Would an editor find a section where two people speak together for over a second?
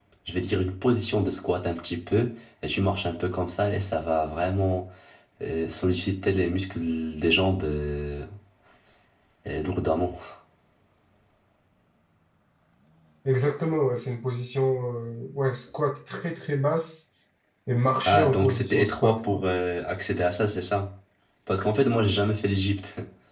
Yes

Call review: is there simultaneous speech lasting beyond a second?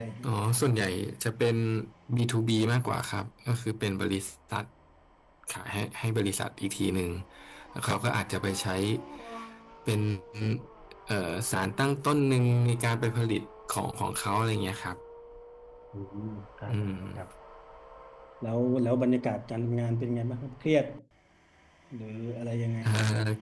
No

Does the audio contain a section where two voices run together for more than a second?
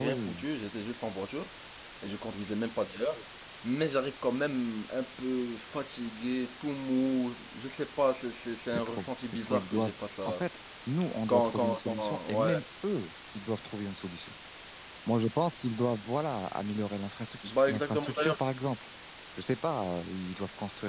Yes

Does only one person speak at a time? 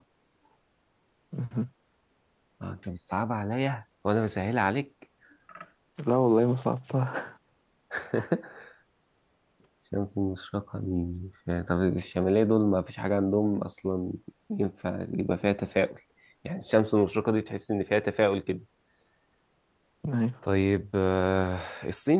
Yes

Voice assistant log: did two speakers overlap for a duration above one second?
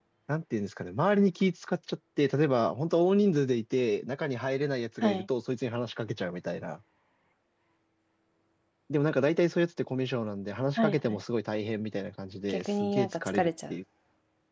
Yes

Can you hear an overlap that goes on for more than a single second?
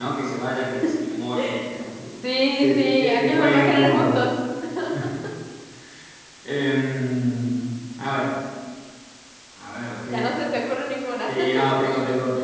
Yes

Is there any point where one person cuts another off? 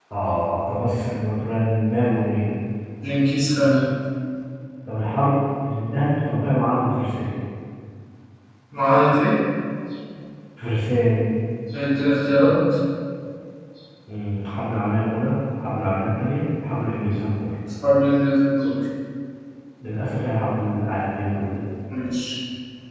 No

